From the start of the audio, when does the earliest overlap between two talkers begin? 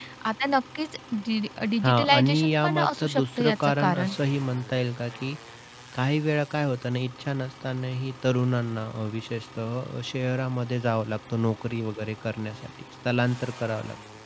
1.8 s

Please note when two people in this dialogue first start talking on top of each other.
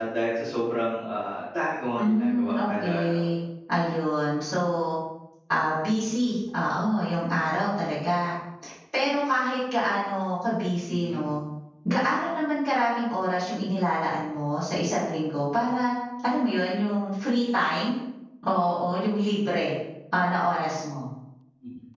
2.0 s

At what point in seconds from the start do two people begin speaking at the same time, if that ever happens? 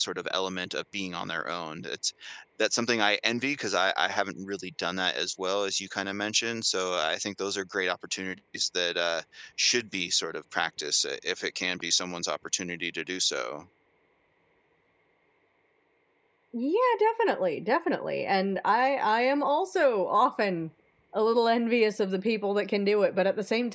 none

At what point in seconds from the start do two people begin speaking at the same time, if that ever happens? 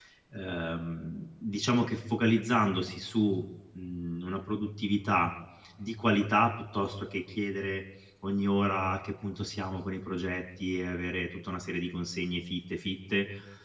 none

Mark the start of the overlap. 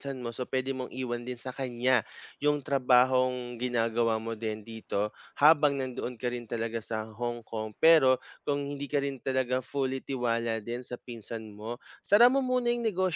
none

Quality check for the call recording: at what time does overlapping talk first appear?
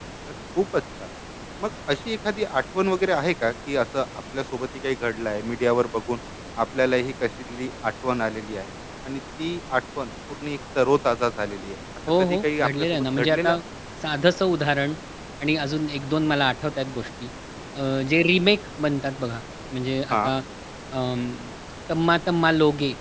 12.1 s

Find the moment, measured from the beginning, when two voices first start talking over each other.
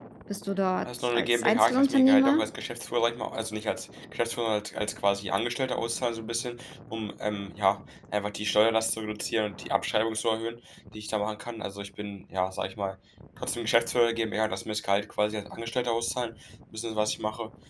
0.8 s

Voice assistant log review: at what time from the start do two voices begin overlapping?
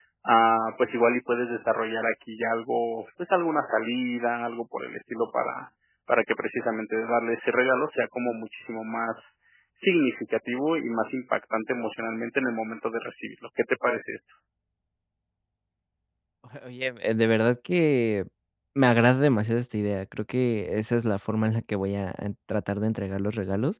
none

